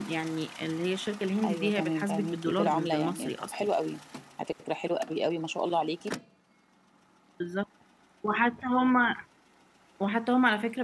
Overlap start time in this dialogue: 1.4 s

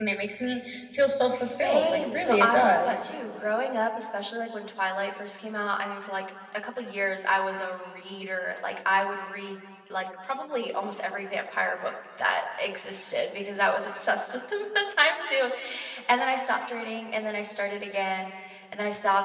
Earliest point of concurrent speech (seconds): 1.6 s

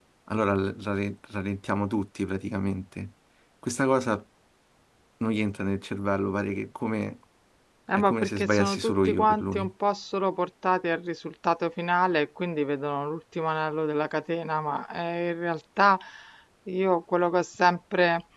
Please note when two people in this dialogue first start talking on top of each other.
7.9 s

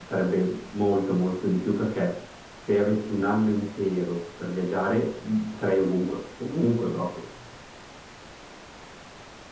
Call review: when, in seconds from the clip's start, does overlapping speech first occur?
none

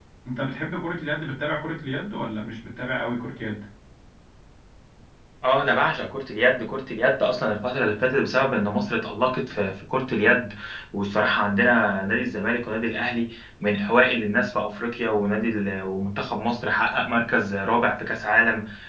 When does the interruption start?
none

